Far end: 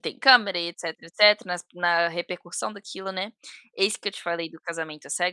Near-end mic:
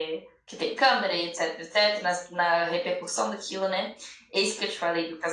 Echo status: present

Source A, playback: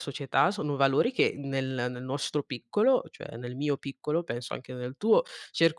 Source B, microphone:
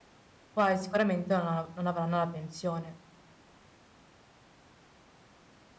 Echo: none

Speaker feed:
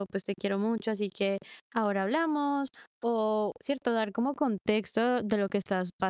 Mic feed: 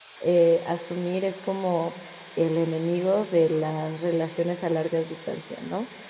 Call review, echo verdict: none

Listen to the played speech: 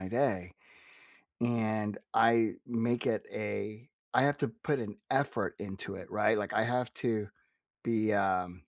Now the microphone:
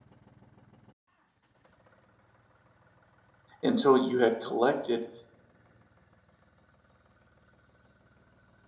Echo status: none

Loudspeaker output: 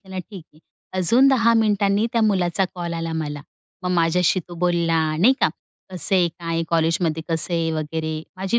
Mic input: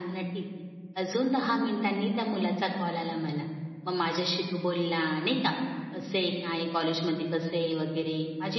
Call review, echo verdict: present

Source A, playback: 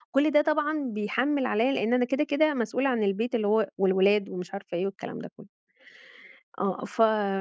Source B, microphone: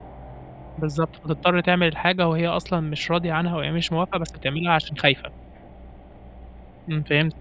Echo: none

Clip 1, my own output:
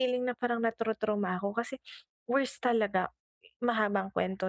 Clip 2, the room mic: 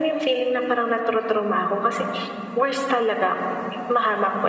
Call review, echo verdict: present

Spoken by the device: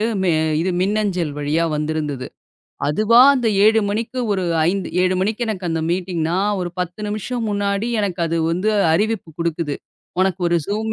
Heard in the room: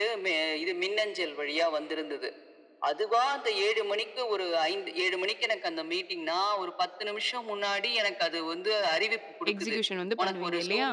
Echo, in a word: present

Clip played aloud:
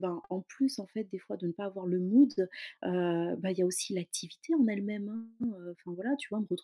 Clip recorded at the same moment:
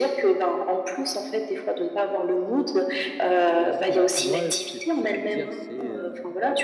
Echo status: present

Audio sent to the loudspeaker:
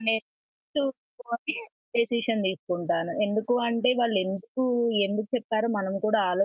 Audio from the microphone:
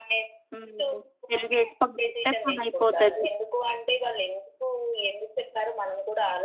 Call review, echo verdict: present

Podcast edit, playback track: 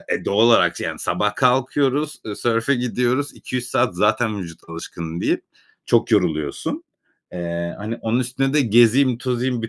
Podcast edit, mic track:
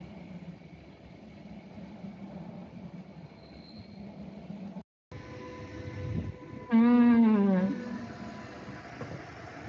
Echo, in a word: none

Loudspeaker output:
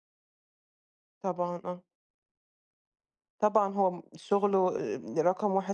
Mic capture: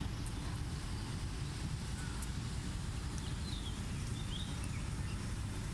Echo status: none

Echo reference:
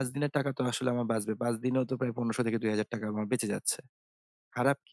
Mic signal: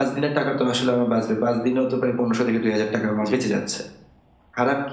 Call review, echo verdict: present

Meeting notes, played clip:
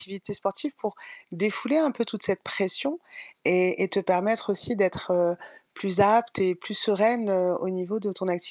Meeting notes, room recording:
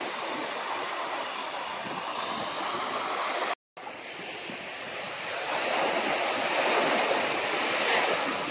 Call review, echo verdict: none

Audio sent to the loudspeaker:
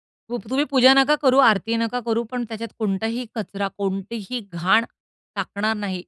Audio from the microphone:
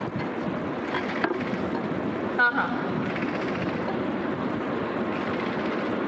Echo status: none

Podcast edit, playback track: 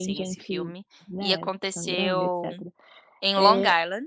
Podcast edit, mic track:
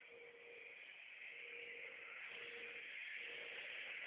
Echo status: none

